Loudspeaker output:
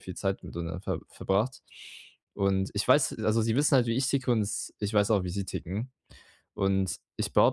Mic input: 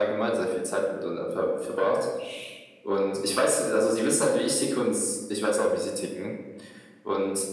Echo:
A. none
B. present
B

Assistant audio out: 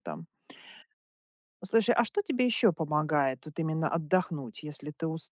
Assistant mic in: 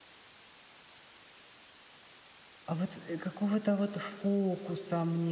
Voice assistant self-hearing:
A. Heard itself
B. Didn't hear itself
B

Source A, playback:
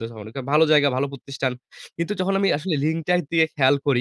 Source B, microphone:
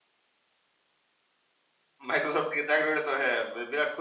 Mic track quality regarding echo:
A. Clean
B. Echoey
A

